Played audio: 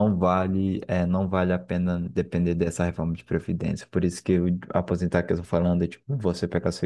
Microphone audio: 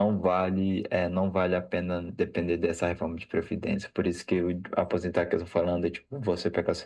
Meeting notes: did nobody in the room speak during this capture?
Yes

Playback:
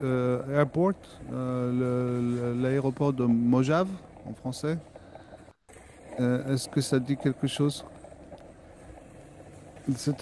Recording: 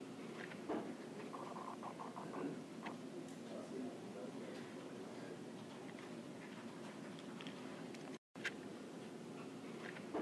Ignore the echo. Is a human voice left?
No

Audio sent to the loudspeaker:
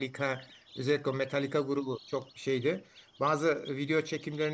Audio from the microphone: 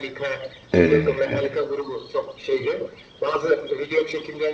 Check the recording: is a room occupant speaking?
Yes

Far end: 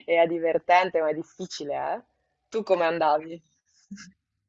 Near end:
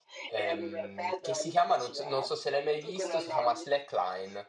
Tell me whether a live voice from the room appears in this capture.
Yes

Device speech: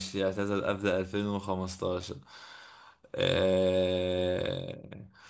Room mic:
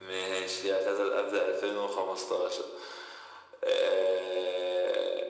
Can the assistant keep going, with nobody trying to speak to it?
Yes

